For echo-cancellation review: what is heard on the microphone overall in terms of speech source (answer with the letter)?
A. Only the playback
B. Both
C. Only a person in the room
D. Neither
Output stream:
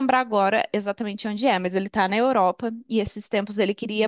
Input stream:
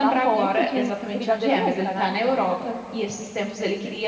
B